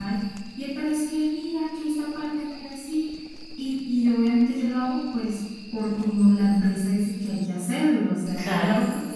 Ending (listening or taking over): listening